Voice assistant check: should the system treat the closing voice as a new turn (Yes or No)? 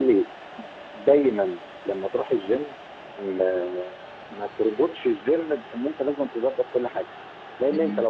No